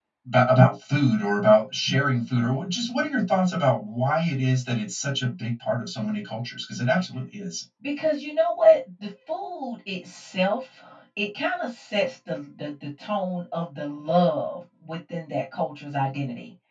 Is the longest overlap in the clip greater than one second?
No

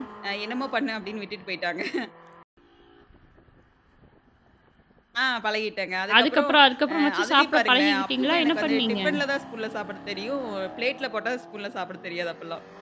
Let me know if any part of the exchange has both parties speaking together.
Yes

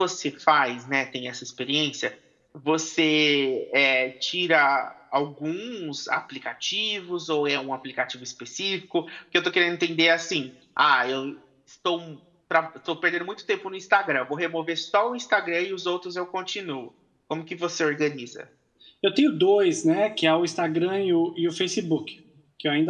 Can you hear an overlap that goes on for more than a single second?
No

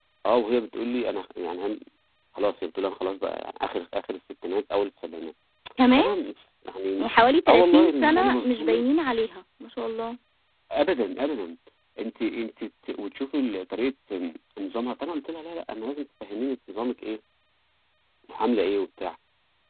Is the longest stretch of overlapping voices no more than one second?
No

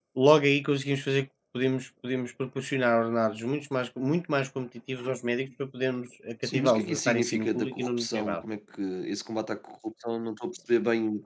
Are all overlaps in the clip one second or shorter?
No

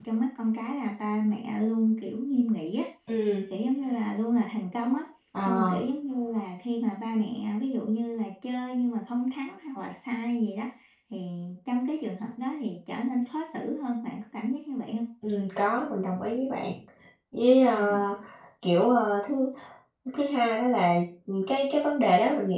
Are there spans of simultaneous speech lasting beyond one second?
No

